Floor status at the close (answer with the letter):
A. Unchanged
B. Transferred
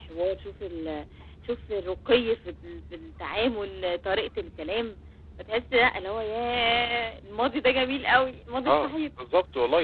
B